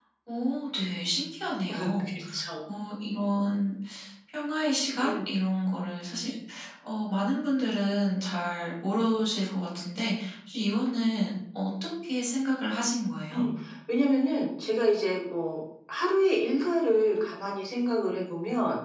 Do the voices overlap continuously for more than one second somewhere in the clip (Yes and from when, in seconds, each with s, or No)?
No